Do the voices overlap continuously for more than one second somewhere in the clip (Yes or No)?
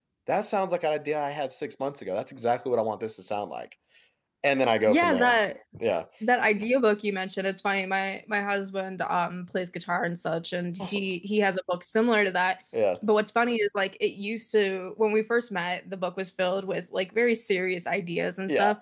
No